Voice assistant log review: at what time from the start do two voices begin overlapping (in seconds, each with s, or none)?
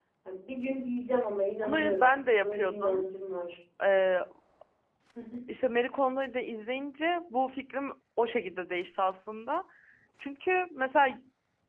1.6 s